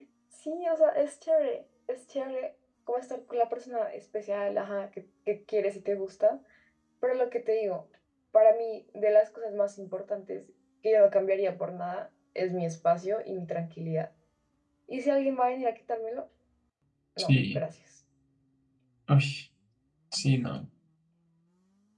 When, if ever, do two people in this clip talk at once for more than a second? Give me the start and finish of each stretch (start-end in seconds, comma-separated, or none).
none